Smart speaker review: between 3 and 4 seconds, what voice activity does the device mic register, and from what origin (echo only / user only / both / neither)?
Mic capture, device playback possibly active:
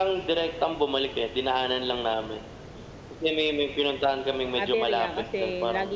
echo only